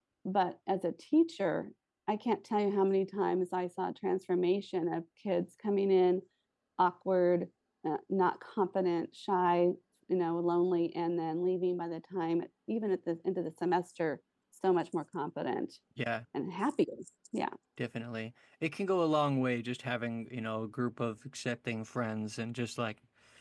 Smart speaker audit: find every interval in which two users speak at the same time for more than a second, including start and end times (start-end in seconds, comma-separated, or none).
none